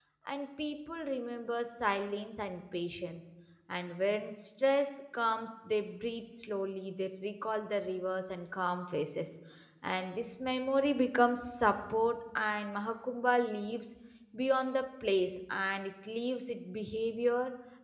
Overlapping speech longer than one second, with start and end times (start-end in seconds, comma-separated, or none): none